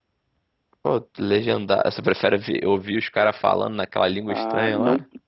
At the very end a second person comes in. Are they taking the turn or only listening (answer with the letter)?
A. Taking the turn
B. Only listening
A